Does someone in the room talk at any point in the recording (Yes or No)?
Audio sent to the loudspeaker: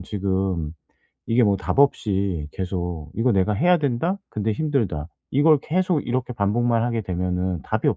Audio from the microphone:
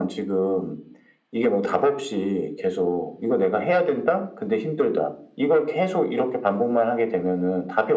No